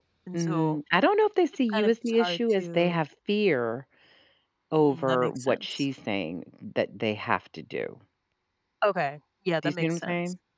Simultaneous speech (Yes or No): Yes